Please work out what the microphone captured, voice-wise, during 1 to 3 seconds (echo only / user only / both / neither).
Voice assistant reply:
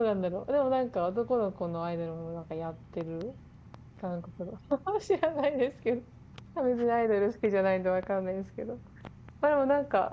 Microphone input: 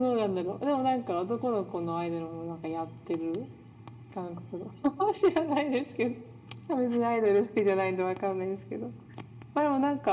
echo only